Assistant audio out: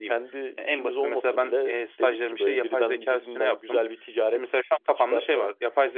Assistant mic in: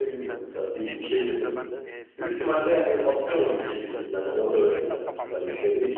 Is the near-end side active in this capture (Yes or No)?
Yes